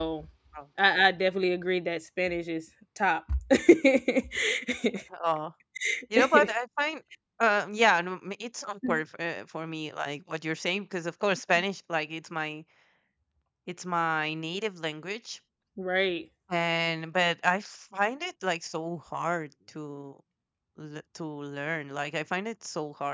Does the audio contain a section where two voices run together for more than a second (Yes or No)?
No